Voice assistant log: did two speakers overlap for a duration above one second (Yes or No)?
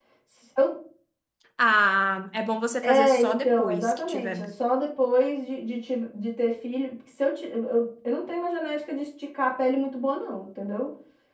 Yes